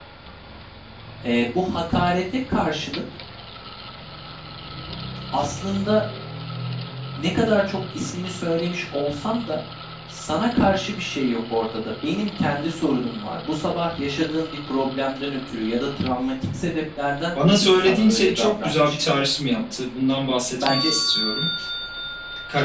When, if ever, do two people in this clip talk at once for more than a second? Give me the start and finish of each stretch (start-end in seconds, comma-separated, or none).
17.6-19.2